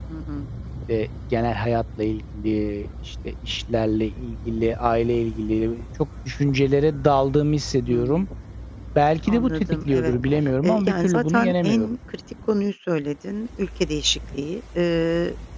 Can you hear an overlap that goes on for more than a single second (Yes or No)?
Yes